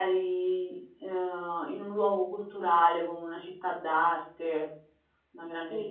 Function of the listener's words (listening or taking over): taking over